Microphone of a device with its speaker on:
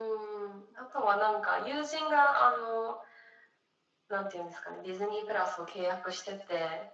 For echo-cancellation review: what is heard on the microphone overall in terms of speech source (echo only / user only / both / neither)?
echo only